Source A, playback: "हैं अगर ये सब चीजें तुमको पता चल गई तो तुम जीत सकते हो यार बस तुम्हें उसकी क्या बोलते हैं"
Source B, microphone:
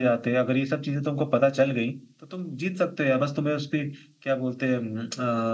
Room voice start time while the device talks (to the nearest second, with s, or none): none